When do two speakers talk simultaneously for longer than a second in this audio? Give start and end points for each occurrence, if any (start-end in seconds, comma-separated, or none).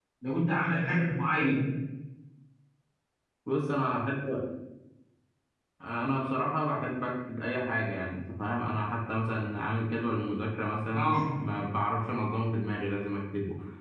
none